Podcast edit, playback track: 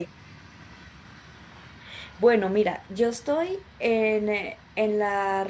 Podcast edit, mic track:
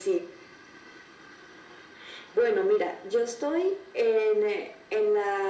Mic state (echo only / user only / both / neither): echo only